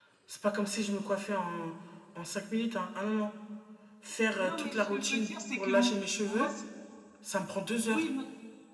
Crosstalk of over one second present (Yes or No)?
Yes